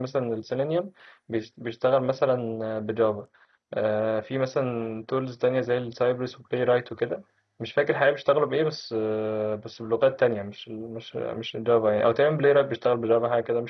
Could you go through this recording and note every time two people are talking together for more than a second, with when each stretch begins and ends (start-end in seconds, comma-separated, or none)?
none